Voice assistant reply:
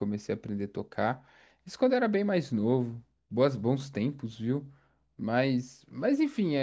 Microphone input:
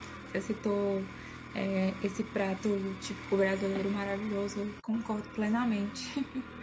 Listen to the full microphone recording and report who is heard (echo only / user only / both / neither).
user only